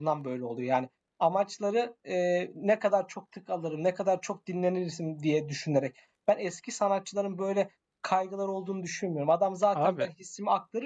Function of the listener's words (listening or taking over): listening